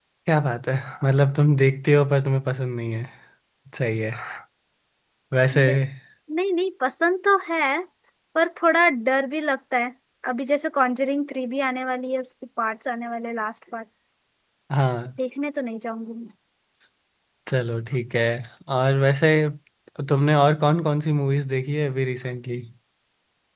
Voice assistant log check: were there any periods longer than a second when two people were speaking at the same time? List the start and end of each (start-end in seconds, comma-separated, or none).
none